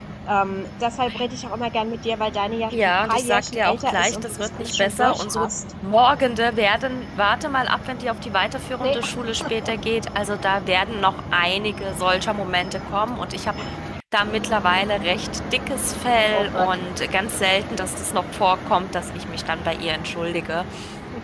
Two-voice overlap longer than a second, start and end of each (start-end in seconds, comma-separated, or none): 2.7-5.5